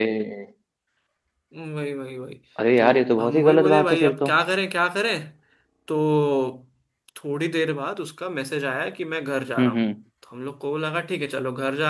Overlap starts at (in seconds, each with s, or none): 2.8 s